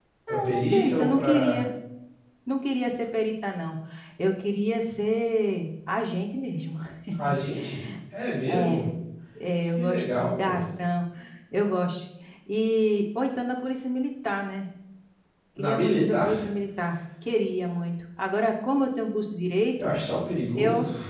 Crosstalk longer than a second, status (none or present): present